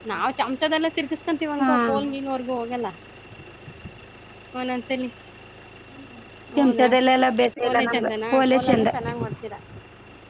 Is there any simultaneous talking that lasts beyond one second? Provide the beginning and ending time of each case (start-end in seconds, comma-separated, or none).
7.6-8.9